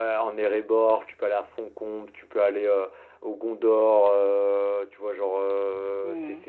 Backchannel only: Yes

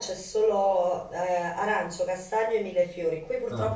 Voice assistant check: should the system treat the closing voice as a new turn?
No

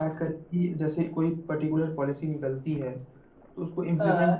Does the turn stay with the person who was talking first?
Yes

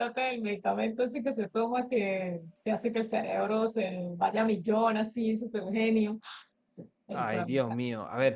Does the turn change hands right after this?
Yes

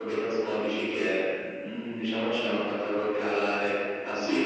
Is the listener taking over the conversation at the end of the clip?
Yes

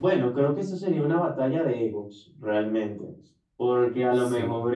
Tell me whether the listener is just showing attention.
Yes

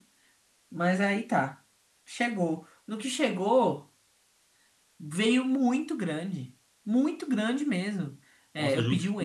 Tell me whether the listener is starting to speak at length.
Yes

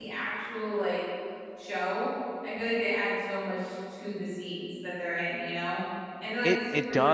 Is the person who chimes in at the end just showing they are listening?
No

